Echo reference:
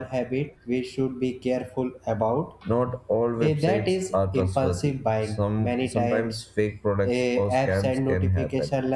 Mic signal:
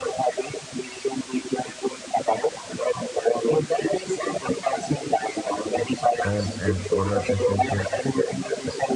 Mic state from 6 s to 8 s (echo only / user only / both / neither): both